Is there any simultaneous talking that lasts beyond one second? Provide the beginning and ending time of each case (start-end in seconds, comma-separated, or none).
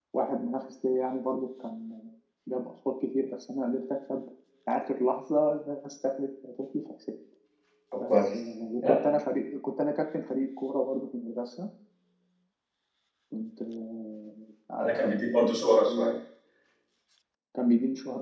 none